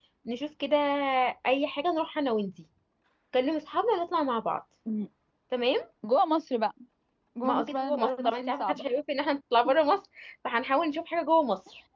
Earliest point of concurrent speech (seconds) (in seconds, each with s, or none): 7.4 s